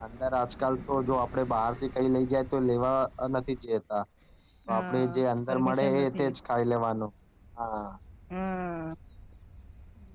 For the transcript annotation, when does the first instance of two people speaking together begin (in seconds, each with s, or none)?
4.7 s